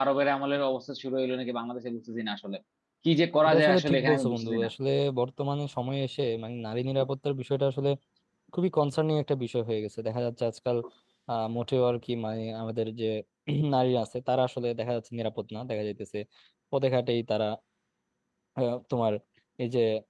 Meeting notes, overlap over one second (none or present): present